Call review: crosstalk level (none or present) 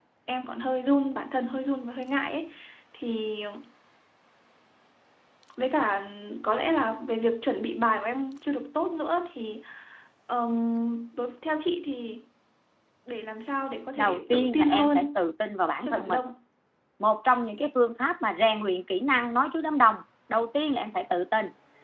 present